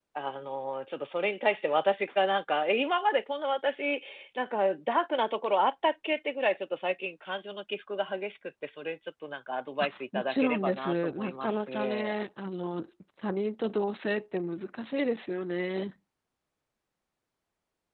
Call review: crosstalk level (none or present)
present